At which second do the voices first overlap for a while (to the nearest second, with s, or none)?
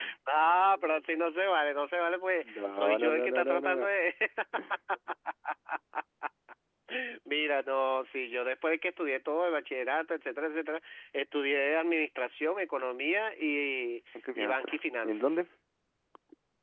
2 s